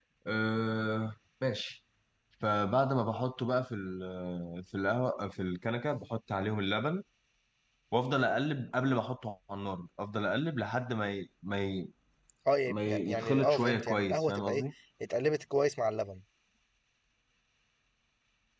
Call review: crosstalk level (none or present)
present